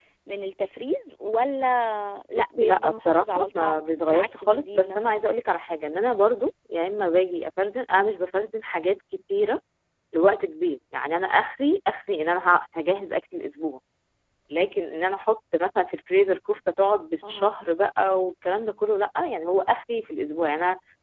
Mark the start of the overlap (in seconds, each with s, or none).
2.4 s